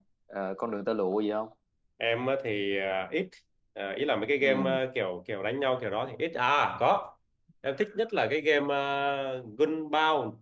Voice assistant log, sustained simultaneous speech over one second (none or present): none